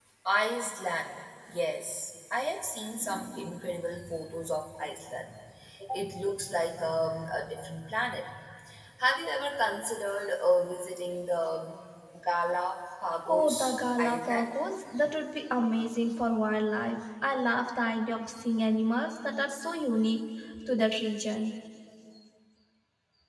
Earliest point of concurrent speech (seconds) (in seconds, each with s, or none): 13.3 s